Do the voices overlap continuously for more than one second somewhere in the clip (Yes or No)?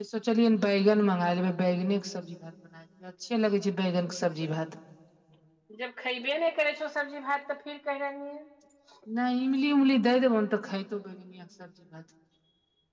No